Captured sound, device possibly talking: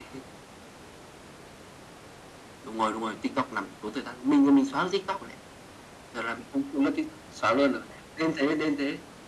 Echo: present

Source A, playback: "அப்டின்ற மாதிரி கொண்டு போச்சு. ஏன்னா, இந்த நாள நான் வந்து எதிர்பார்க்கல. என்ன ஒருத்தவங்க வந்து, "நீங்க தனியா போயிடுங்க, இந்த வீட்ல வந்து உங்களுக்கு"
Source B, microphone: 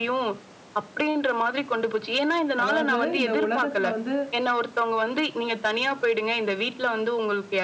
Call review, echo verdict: present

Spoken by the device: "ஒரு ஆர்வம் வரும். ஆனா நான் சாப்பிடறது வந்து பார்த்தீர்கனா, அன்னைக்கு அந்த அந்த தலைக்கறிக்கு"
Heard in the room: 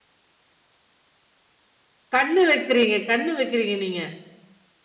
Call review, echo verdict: none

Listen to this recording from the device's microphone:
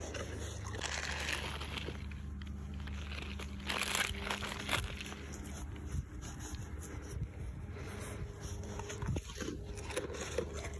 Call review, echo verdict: none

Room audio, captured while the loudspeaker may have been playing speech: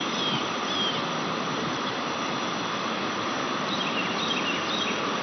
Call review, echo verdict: none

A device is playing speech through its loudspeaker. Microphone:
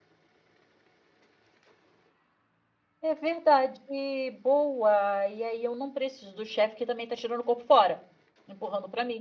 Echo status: none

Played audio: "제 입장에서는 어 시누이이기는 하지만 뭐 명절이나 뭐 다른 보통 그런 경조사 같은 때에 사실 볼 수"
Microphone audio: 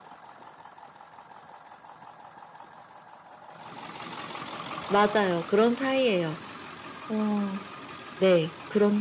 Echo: none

